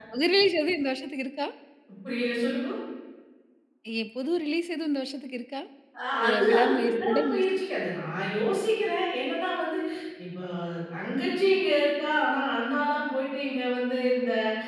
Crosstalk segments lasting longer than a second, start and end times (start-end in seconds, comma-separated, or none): 6.2-7.4